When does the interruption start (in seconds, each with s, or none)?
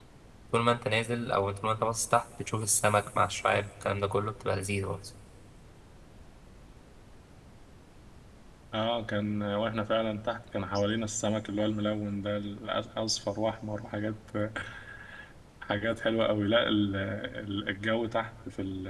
none